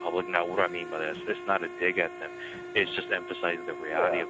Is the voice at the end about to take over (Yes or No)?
No